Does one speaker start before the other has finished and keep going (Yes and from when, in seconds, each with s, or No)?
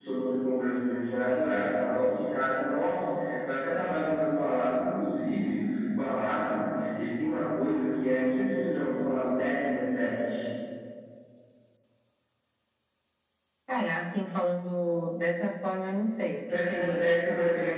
Yes, from 16.4 s